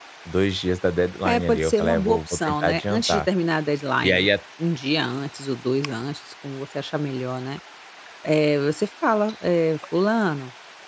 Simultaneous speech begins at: 1.2 s

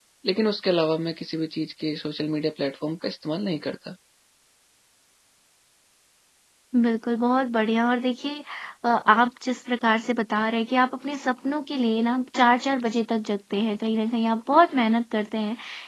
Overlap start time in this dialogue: none

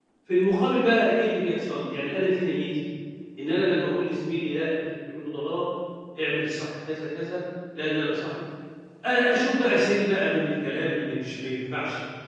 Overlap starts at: none

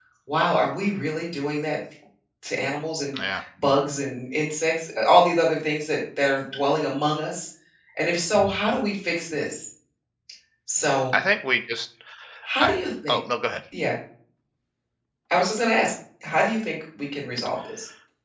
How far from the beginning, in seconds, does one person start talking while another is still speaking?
none

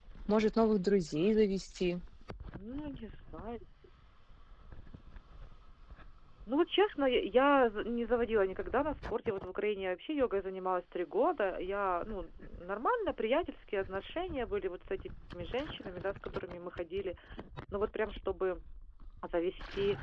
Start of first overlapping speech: none

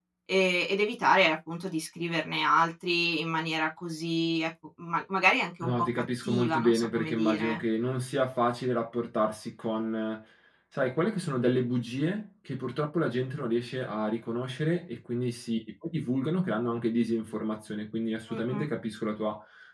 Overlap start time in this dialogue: 5.6 s

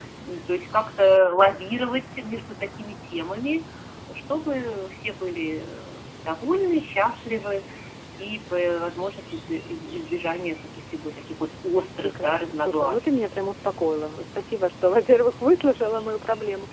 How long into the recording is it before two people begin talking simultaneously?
12.0 s

